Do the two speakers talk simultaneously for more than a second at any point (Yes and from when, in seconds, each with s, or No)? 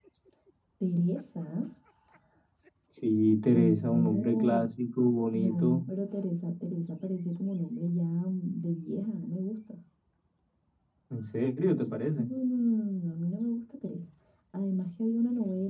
Yes, from 3.5 s